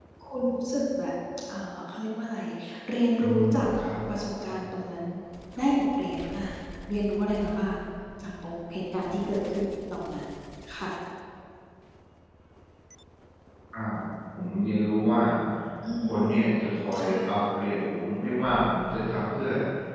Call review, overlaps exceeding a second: none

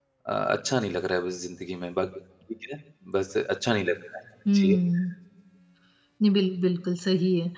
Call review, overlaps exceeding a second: none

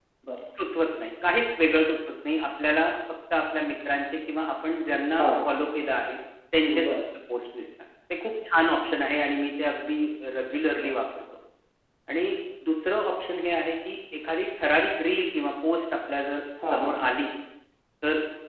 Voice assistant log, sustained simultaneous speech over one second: none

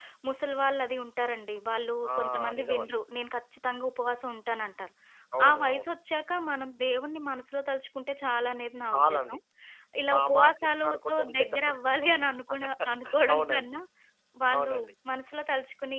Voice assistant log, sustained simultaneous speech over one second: present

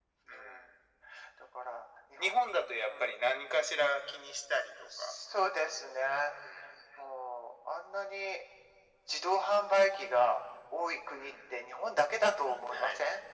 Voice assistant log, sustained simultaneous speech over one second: none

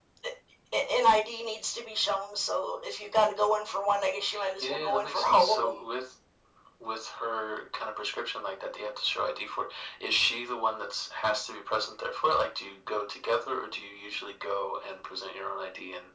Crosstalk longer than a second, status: present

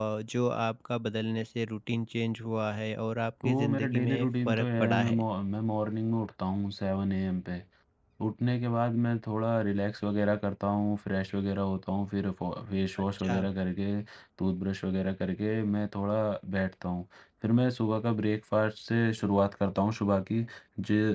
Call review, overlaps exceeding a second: present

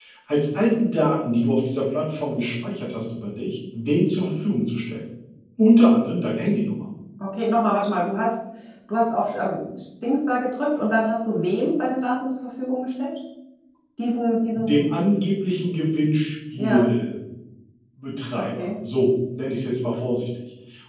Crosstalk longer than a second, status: none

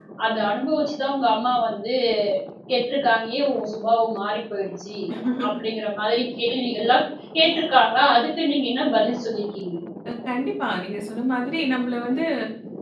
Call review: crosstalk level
none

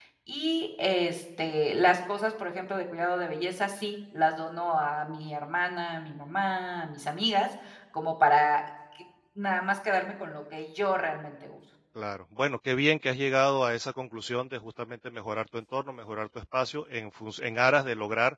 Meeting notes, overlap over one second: none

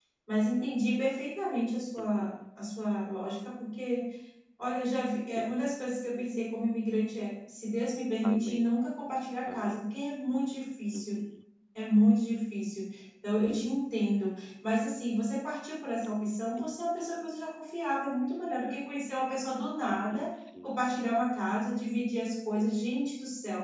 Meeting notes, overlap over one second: none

